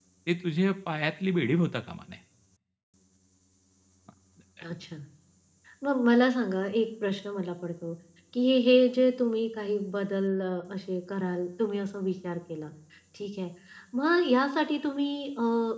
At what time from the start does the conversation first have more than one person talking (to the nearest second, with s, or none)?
none